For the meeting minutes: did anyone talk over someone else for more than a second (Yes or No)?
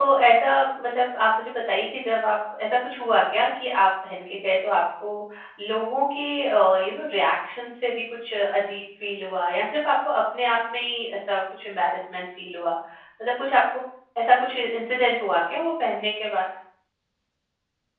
No